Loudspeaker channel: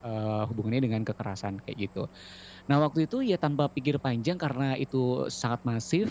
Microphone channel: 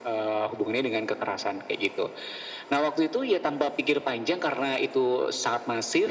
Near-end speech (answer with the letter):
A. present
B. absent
B